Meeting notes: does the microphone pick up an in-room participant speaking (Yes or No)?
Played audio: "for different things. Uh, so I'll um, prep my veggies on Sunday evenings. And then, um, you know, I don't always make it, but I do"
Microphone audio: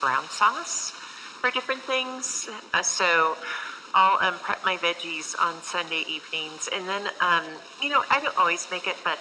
No